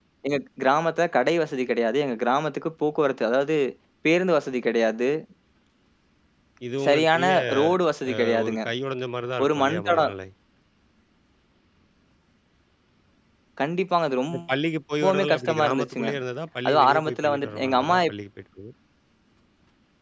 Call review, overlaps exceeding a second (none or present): present